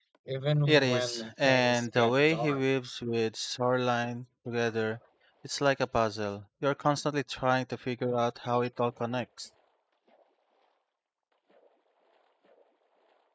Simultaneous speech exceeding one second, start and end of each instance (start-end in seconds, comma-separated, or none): 0.7-2.6